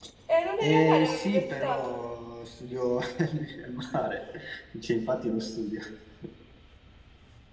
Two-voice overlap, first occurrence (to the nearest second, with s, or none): 1 s